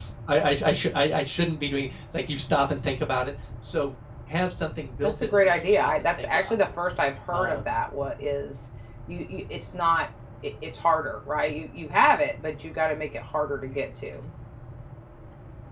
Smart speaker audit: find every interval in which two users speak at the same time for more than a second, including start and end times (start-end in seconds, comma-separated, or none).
5.0-6.7